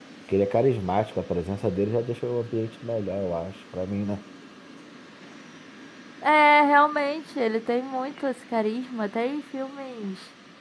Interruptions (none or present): none